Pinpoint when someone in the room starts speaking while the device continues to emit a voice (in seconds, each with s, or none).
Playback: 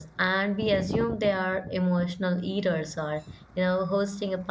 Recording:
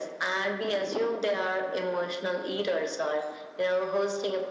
none